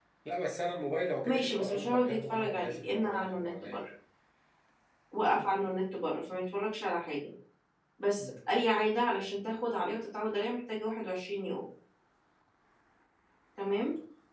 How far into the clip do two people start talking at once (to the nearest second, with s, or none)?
1 s